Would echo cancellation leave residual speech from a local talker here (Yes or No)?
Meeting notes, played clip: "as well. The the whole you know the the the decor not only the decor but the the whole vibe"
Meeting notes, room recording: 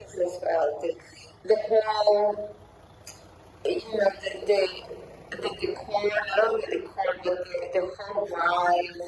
No